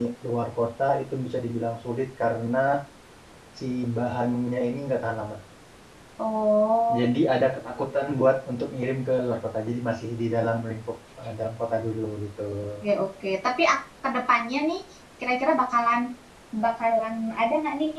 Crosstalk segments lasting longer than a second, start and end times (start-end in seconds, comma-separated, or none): none